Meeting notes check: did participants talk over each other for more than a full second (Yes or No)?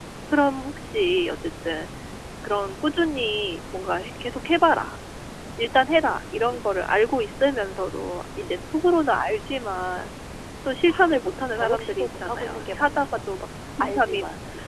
Yes